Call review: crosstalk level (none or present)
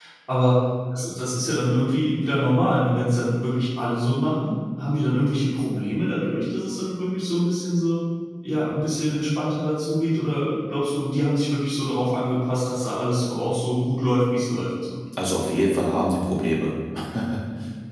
none